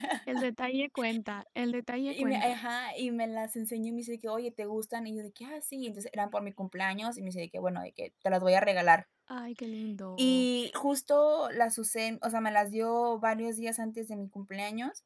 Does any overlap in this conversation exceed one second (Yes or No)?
No